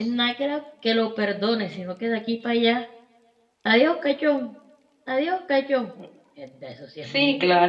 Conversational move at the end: taking over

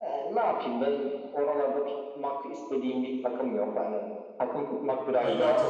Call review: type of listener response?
taking over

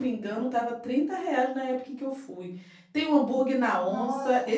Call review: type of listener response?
listening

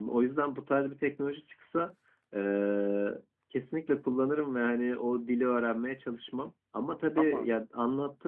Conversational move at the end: listening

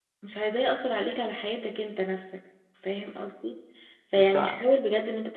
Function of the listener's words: listening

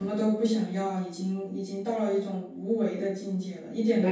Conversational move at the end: taking over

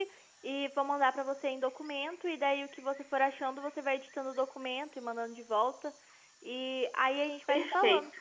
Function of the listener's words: taking over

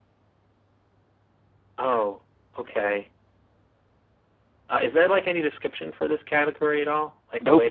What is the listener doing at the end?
taking over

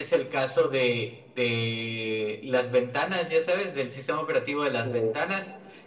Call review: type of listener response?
listening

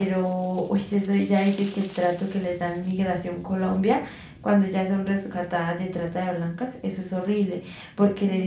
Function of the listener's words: listening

